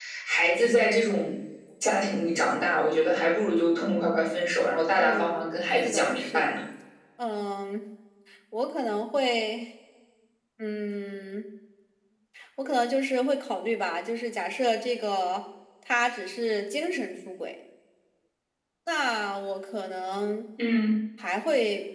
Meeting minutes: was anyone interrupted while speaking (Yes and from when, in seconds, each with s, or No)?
Yes, from 5.0 s